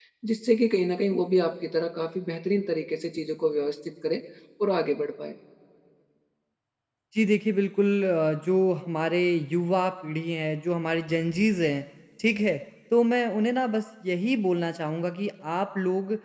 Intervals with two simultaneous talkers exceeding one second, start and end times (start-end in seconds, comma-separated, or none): none